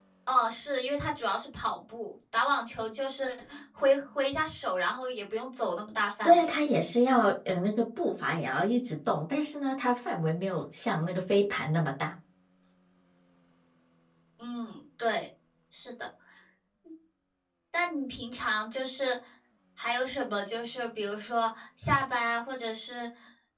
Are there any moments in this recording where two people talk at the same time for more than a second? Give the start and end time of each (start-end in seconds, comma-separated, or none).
none